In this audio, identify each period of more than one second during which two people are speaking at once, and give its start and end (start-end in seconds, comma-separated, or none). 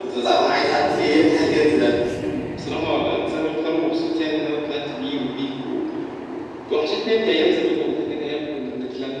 none